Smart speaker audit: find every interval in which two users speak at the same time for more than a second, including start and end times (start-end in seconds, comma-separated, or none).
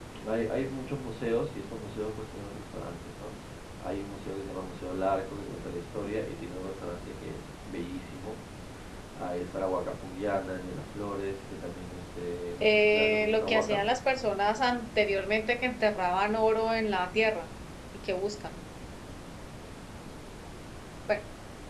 12.6-13.8